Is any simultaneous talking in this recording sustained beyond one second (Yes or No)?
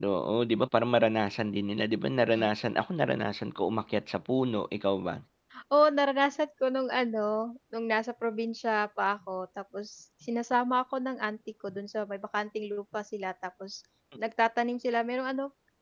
No